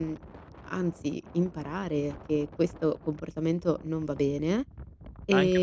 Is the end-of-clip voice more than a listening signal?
Yes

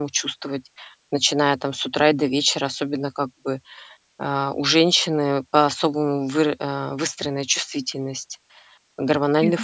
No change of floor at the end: Yes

